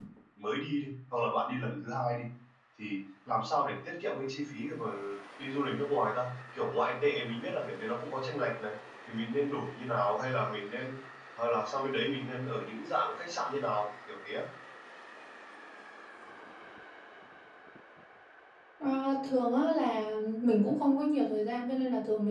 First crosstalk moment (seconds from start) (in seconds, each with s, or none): none